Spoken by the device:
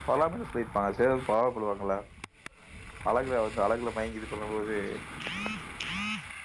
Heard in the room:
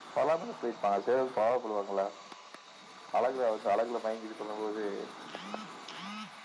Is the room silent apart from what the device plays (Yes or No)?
Yes